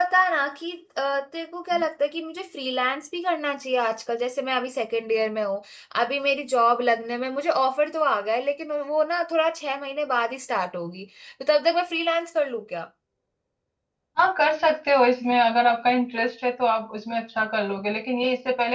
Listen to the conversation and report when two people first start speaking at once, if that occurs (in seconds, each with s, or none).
none